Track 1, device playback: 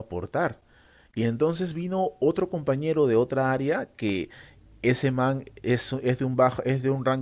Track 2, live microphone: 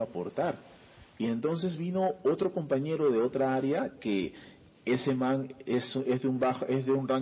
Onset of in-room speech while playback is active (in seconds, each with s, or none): none